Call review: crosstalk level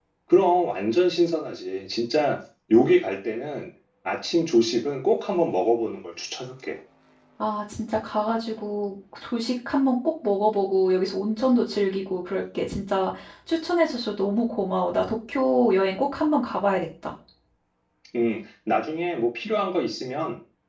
none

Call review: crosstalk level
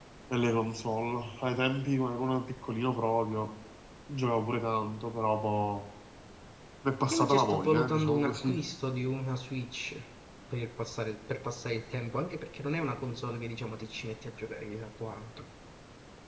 present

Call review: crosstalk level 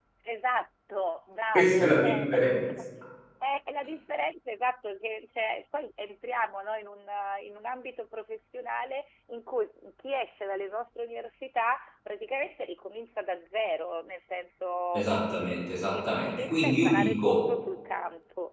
present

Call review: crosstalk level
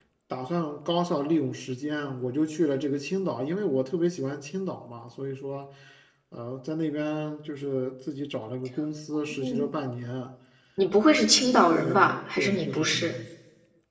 present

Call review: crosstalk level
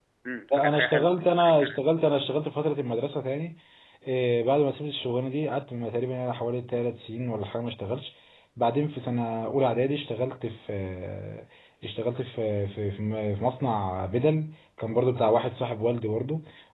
present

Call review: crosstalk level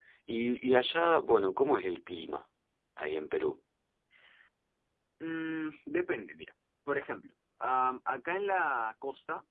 none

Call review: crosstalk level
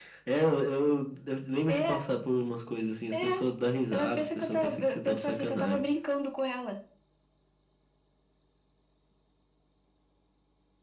present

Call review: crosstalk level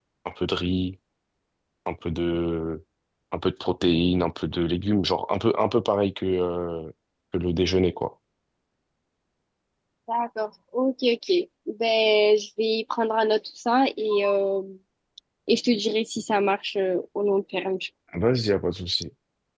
none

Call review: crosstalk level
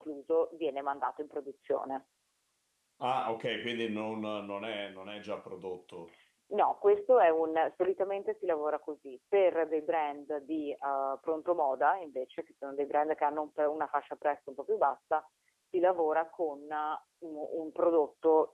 none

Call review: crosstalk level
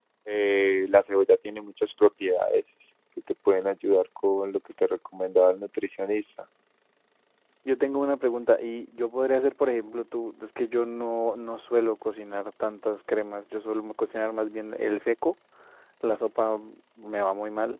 none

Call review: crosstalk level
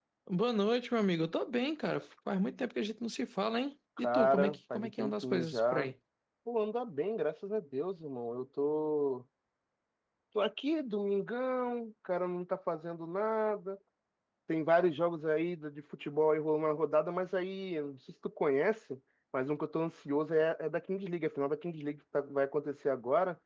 present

